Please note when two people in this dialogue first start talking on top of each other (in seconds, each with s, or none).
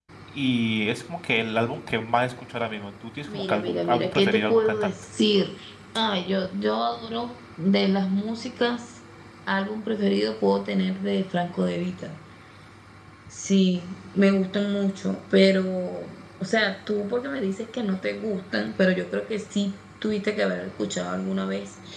3.3 s